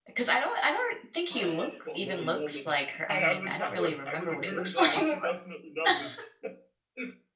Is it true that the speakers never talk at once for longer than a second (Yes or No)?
No